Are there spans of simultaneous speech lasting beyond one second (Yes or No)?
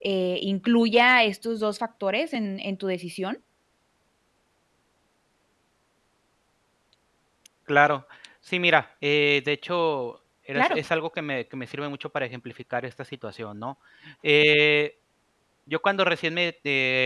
No